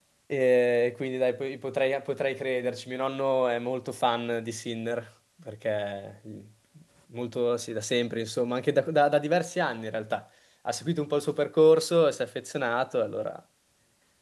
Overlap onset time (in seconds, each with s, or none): none